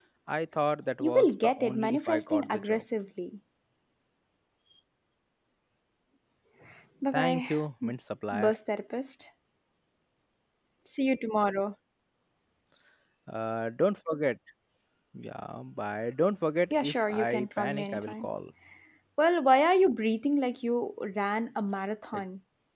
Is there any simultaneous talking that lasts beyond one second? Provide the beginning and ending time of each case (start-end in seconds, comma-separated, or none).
1.0-2.8, 16.7-18.3